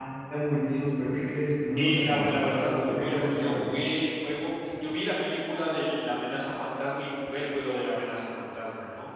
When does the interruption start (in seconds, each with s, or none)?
1.8 s